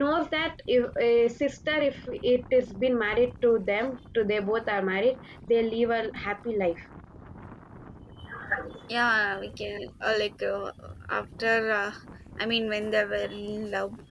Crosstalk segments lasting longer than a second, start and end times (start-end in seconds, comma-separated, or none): none